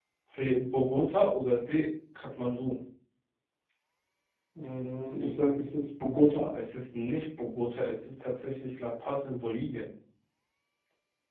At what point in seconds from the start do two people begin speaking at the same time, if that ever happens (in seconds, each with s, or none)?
none